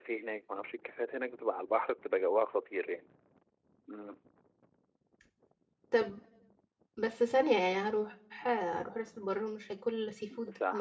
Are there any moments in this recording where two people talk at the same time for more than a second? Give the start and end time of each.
none

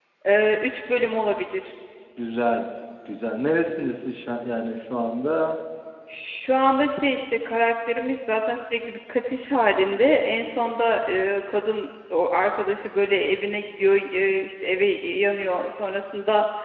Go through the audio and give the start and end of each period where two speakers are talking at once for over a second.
none

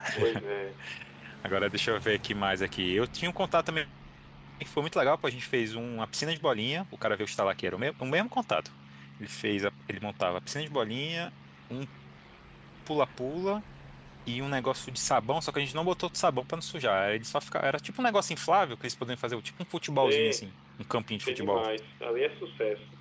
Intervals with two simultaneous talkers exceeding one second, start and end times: none

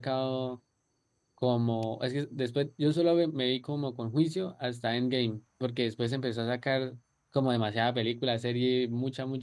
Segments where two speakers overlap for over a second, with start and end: none

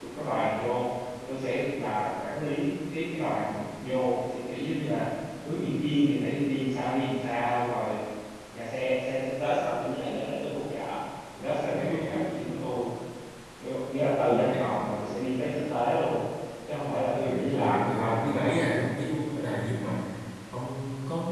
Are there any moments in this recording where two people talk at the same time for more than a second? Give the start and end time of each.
17.2-18.9

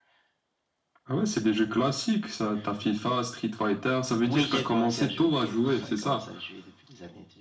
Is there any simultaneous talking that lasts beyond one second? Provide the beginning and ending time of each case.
4.2-6.2

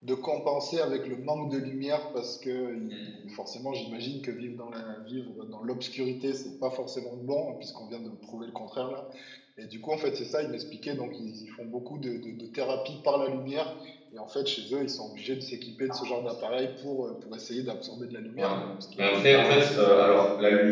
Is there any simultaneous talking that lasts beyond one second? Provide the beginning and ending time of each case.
19.0-20.2

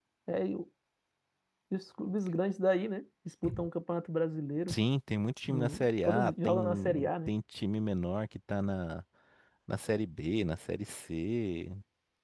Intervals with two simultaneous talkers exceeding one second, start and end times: 5.5-7.3

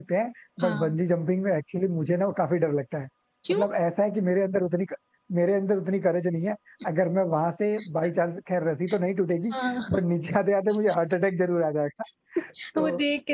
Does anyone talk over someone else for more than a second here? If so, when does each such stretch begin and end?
none

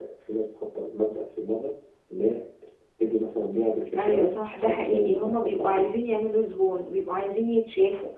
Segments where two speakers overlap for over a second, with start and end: 4.0-5.9

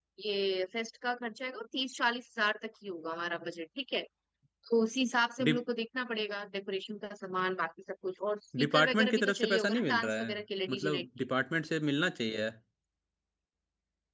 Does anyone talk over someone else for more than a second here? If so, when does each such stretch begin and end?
8.6-10.3

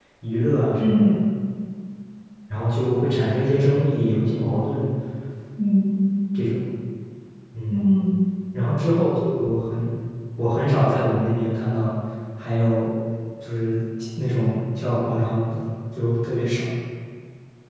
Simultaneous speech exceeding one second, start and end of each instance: none

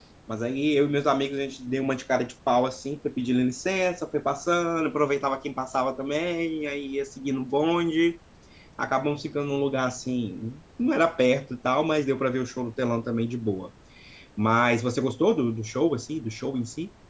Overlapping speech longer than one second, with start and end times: none

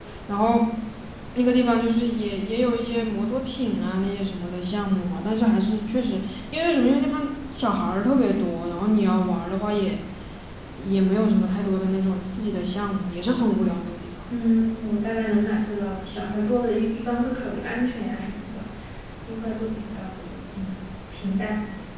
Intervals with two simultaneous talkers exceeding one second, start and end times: none

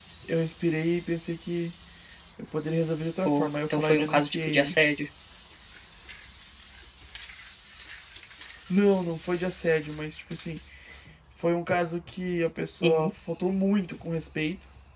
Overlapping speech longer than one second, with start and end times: 3.2-4.7

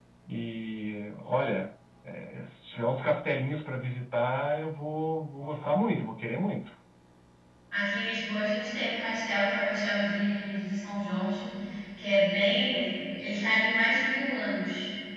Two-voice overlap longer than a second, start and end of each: none

